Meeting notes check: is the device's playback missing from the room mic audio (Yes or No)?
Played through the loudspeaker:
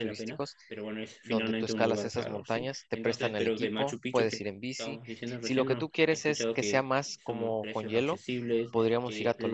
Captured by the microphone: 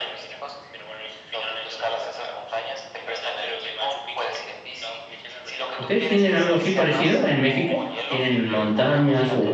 No